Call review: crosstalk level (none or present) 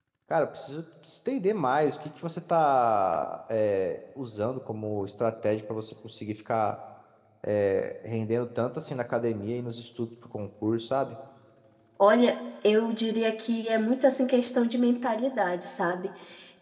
none